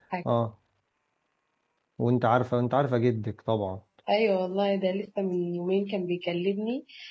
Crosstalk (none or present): none